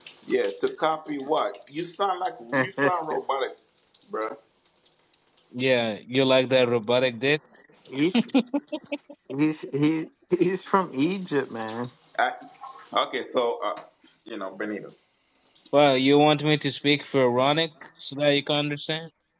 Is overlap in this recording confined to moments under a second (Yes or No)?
Yes